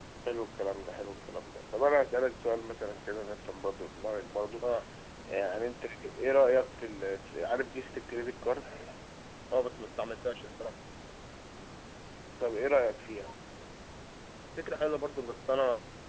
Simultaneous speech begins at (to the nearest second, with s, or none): none